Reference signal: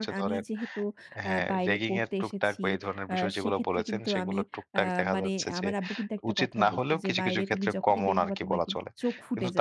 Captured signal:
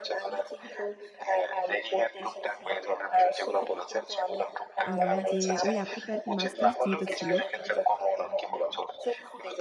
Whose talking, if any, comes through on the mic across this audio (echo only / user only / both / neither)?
both